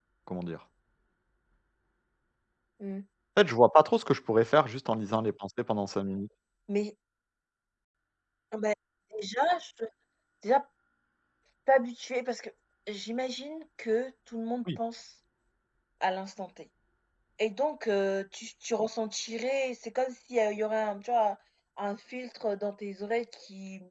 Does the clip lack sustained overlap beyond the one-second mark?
Yes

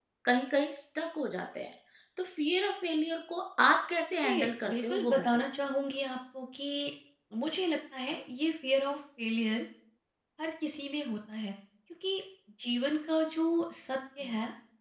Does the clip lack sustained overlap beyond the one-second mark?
No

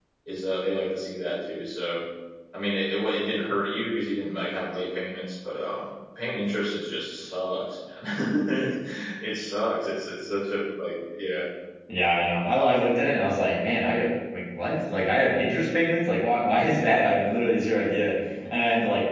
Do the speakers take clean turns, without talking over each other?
Yes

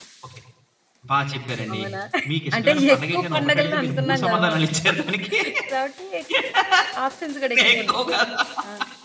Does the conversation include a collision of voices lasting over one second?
Yes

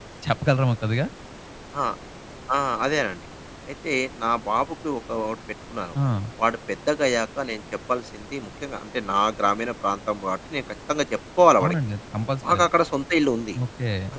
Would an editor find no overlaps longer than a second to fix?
Yes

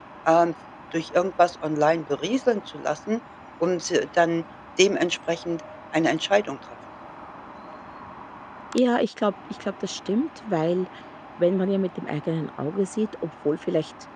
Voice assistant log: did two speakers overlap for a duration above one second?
No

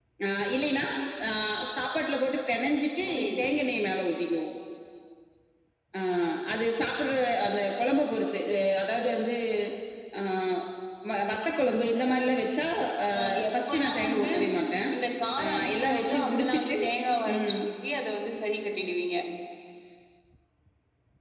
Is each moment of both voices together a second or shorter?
No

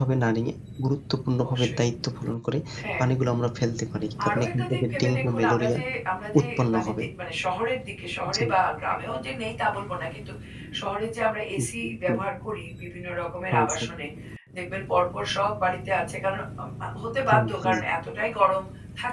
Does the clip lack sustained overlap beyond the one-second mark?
No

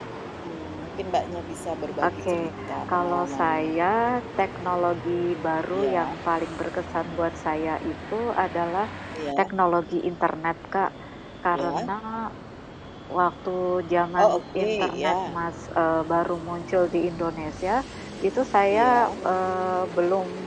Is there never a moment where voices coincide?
No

